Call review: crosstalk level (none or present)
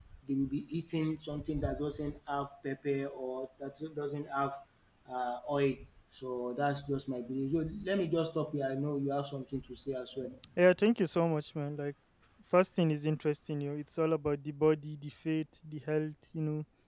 none